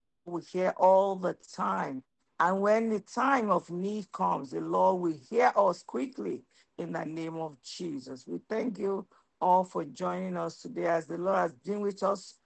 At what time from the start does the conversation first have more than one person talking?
none

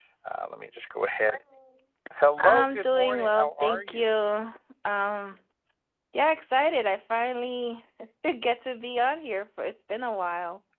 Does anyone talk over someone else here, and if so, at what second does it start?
2 s

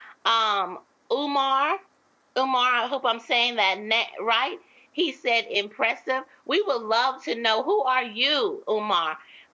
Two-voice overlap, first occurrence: none

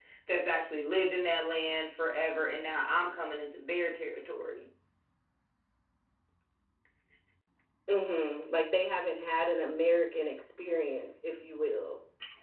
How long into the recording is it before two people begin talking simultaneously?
none

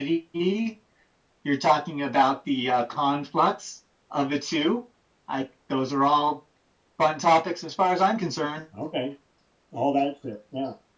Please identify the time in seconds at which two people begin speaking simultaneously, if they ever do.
none

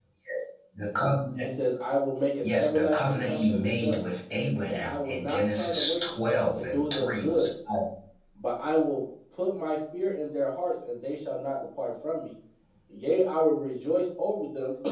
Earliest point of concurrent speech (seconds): 2 s

